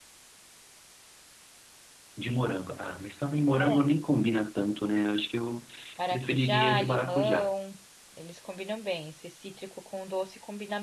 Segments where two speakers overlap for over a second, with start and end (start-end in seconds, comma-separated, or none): 6.1-7.5